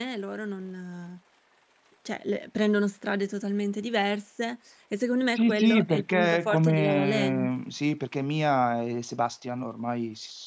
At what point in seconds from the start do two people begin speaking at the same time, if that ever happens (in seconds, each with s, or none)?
5.3 s